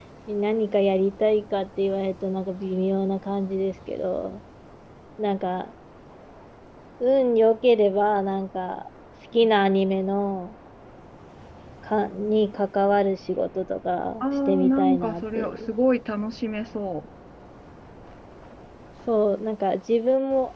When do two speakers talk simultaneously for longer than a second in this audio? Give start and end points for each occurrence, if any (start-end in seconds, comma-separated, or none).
14.2-15.6